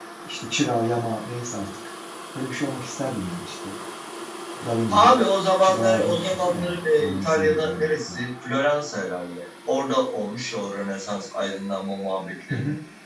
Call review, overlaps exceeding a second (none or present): present